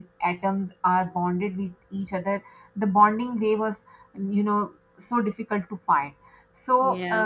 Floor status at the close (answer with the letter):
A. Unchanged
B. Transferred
A